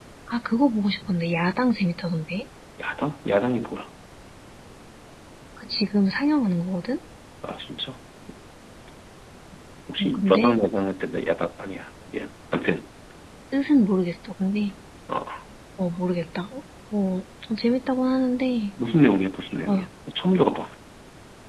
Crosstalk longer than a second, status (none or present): none